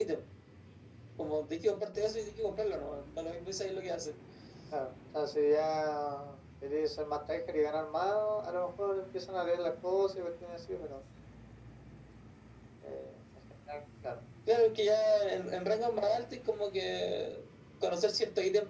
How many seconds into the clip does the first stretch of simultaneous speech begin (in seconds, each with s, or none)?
none